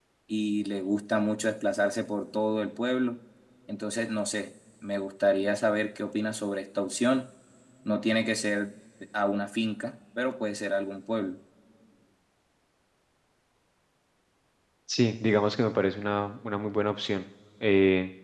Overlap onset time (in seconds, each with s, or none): none